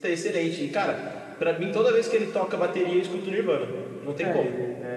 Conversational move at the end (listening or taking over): taking over